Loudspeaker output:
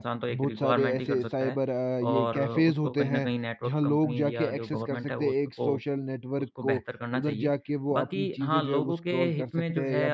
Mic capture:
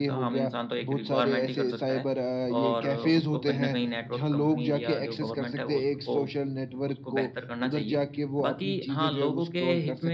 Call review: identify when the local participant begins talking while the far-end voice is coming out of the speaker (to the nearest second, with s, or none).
none